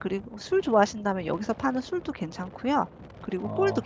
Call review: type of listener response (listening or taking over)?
taking over